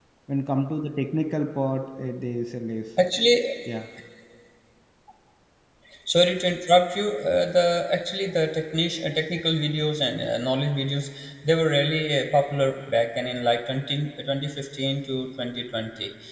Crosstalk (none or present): none